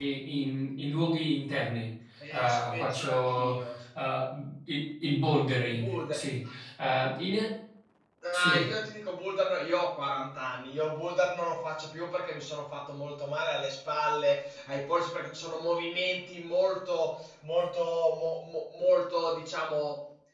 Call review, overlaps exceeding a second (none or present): present